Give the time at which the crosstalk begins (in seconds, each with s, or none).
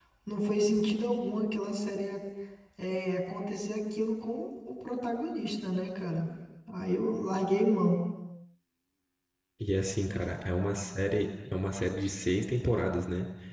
none